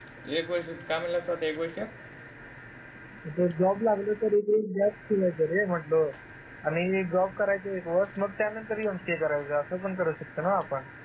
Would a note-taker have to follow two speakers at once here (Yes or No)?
No